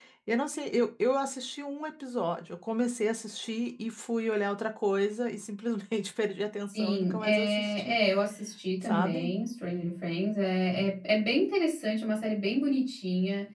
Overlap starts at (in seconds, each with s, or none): 6.7 s